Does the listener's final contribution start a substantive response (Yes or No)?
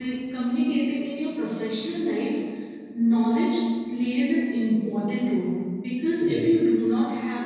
No